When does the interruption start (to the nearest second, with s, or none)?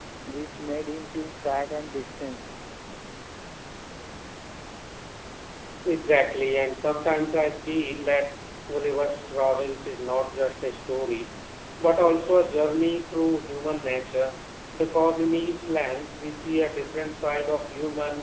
none